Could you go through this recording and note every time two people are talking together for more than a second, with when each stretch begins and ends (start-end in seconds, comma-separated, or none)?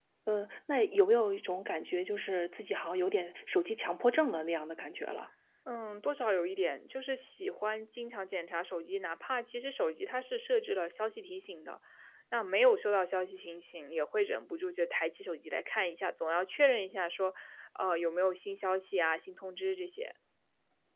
none